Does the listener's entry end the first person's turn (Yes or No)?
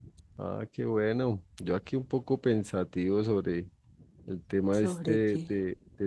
No